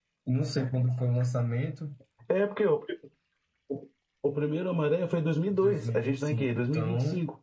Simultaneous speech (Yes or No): Yes